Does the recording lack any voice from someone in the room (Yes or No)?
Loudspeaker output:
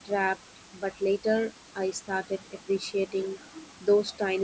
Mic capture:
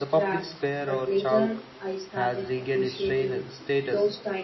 No